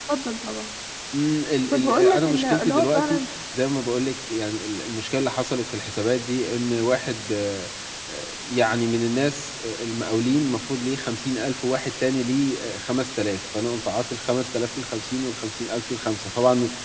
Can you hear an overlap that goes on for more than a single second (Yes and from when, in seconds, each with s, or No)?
Yes, from 1.7 s